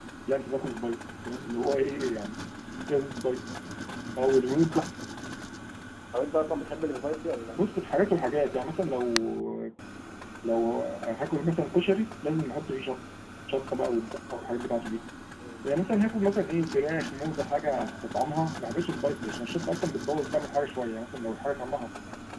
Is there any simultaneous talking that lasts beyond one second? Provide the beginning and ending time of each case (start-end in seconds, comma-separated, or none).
none